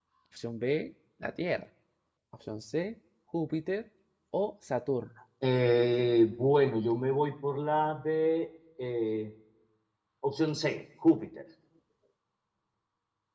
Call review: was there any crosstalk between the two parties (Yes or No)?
No